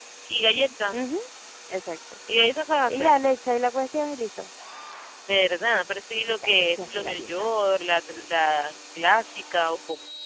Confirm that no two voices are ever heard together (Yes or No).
No